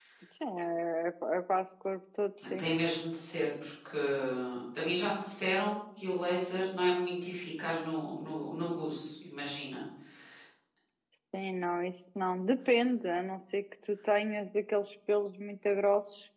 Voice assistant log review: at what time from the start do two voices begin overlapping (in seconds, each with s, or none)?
none